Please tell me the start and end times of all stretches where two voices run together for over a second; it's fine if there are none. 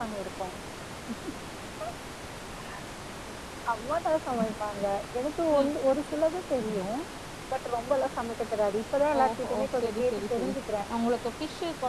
9.2-10.5

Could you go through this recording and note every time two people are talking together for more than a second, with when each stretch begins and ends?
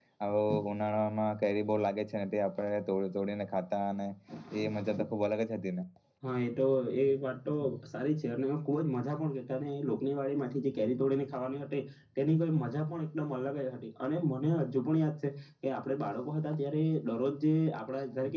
none

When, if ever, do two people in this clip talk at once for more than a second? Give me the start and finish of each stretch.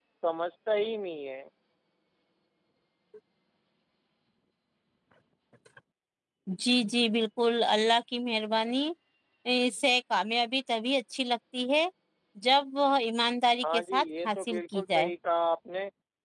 13.6-15.1

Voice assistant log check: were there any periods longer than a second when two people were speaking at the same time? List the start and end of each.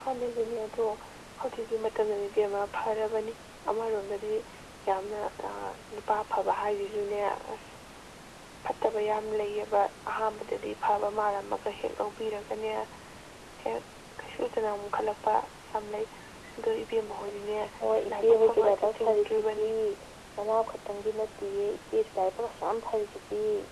18.1-19.7

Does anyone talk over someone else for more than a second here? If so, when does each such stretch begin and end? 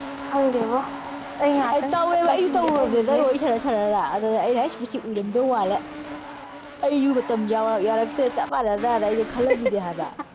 1.7-3.2

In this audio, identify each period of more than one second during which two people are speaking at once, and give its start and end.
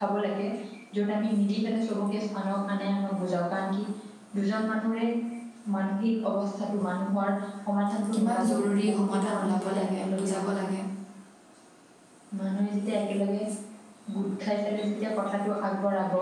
8.2-10.3

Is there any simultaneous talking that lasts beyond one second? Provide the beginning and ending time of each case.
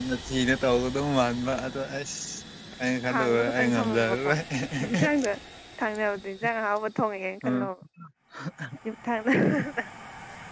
3.1-4.3

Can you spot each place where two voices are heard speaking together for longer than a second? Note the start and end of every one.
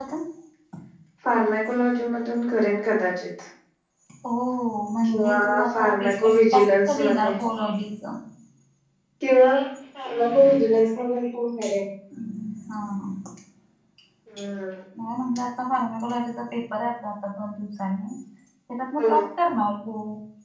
5.1-7.3

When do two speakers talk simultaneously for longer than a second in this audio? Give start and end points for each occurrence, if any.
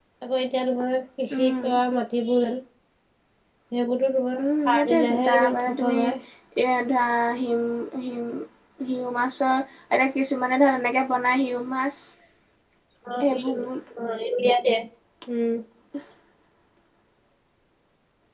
4.6-6.0

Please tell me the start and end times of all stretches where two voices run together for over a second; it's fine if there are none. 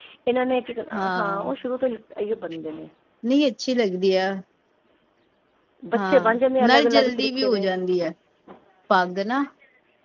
6.0-7.6

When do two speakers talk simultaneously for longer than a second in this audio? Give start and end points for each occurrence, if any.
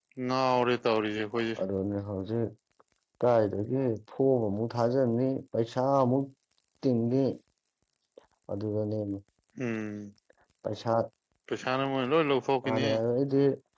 none

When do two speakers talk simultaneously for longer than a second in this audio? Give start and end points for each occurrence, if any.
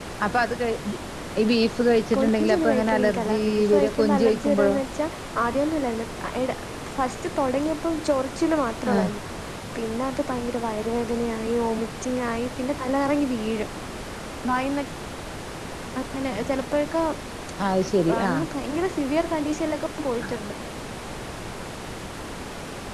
2.1-4.8

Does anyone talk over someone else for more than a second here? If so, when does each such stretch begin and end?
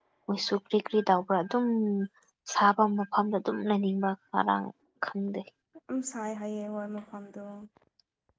none

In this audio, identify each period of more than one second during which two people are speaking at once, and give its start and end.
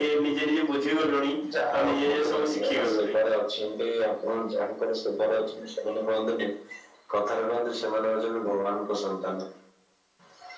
1.7-3.2

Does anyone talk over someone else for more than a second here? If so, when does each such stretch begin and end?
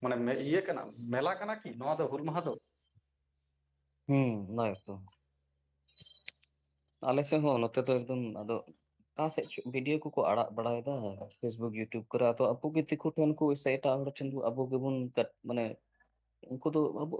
none

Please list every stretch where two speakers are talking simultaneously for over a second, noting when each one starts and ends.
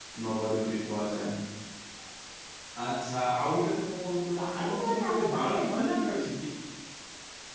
4.4-6.3

